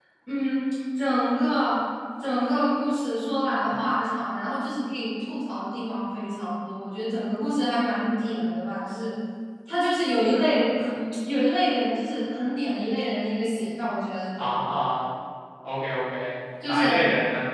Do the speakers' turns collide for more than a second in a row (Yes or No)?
No